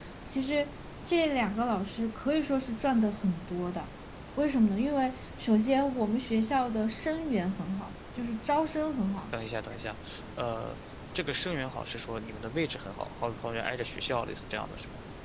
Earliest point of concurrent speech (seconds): none

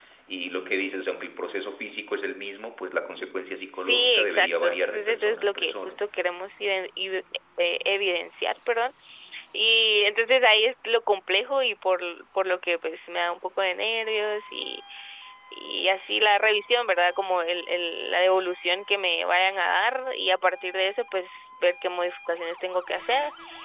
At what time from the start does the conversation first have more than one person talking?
3.8 s

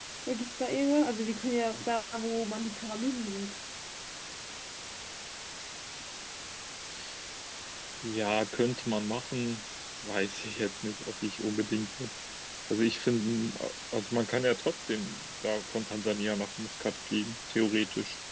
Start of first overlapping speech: none

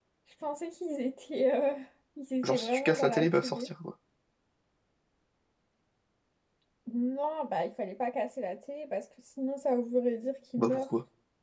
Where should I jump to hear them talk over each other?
2.4 s

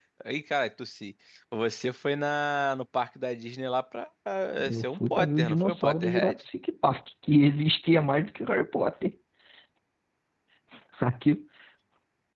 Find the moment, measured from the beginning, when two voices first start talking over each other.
4.6 s

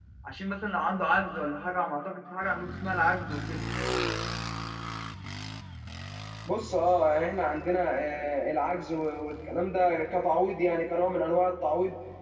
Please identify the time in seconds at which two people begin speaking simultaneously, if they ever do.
none

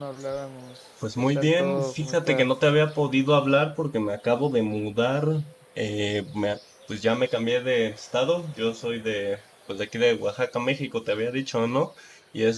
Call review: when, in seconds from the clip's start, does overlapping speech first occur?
1.2 s

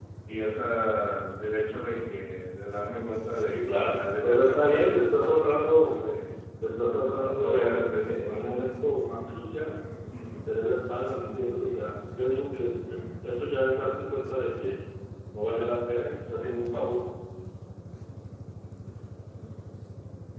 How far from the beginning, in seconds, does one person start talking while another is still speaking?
3.5 s

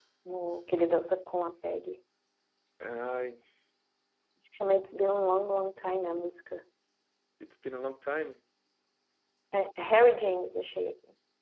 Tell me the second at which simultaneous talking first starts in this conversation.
none

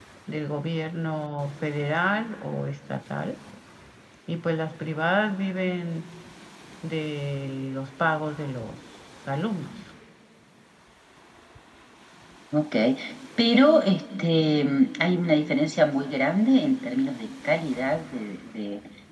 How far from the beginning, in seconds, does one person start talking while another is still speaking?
none

